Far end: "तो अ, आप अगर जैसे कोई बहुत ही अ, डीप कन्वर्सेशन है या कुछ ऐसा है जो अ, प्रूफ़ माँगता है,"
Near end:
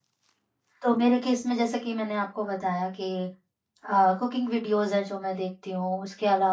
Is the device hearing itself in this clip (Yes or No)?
No